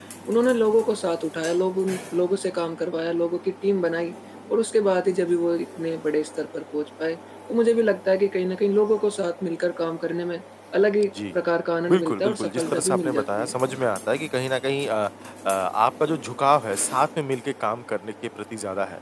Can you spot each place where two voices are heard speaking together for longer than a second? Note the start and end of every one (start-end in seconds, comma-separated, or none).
11.9-13.8